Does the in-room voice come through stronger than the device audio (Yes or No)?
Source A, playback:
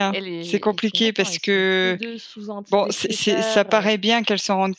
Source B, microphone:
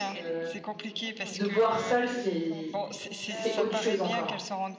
Yes